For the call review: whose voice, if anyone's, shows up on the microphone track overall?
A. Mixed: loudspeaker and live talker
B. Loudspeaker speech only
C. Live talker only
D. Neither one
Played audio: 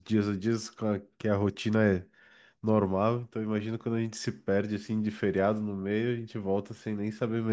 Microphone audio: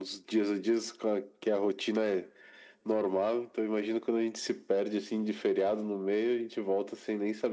B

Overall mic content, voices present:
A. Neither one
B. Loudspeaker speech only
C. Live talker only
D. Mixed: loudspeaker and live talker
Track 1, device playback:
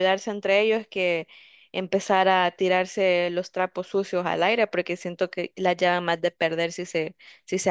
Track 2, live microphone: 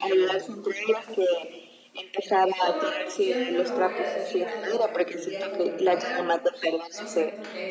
D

